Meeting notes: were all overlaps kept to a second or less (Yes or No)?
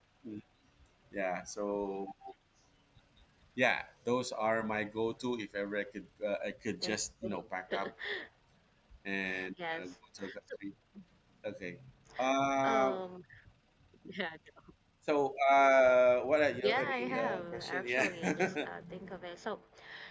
No